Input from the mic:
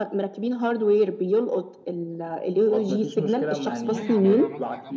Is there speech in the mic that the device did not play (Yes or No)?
Yes